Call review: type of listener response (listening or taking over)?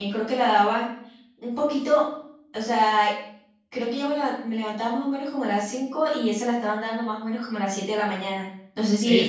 taking over